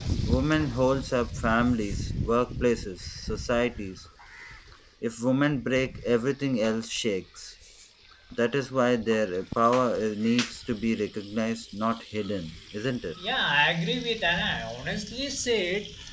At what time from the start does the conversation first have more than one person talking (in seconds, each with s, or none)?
none